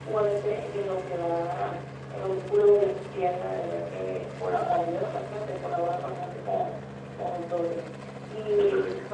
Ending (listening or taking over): listening